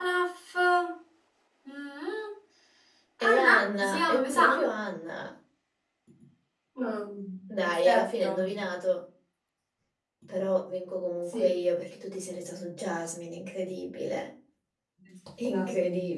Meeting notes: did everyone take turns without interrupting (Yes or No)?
No